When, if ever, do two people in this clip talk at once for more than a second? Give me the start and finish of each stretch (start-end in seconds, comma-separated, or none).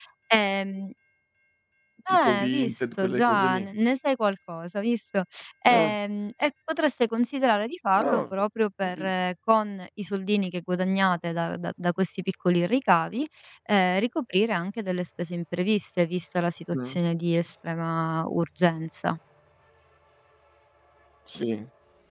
2.1-3.7